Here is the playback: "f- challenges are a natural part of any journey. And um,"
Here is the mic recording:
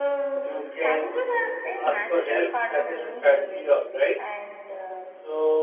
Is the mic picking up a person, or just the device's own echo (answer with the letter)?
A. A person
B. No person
A